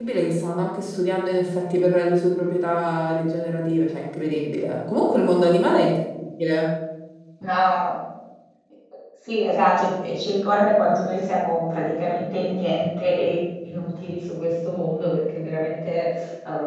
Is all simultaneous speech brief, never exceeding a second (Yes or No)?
Yes